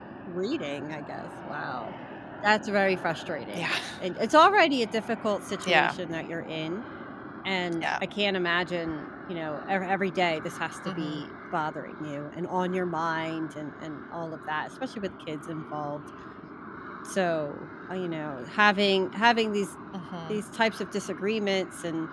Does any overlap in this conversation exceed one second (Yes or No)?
No